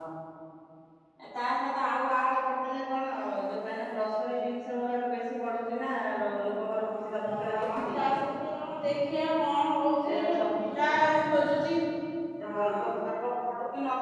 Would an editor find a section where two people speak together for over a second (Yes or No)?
Yes